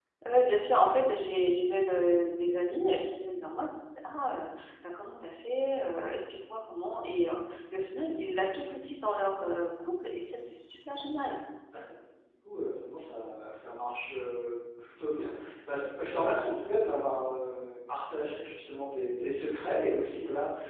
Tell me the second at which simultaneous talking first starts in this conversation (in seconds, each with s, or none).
none